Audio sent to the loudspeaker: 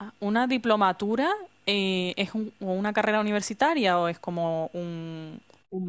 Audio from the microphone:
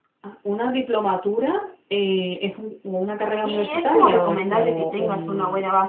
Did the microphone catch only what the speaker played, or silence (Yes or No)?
No